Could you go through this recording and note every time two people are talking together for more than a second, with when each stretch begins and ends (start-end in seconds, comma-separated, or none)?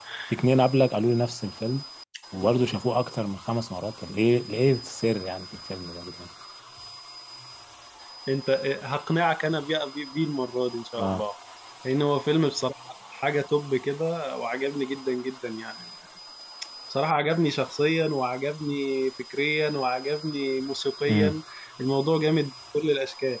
none